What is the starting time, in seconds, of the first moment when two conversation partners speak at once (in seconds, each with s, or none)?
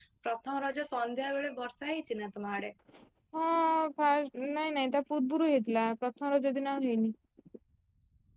none